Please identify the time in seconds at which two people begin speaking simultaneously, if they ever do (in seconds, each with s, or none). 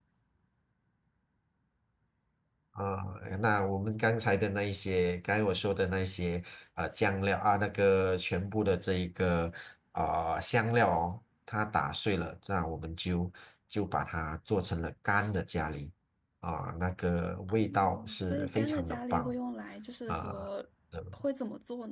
17.5 s